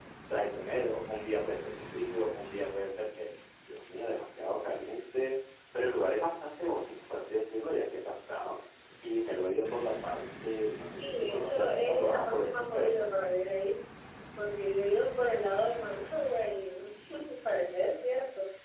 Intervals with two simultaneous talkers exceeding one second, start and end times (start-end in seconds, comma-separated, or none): 10.9-13.0